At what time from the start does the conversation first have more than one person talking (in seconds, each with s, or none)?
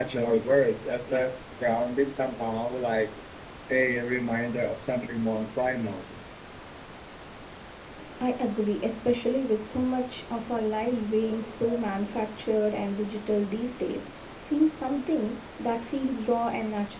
none